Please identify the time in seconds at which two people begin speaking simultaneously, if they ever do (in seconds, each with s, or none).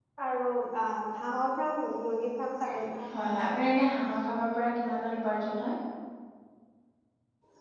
none